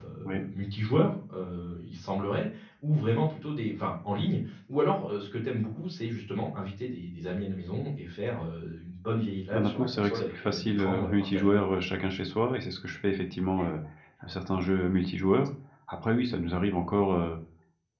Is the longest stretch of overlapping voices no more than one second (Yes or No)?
No